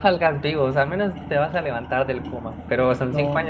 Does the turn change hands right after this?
No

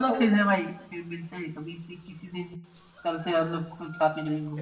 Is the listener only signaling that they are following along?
No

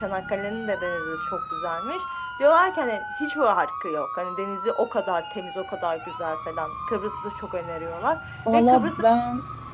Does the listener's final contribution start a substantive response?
Yes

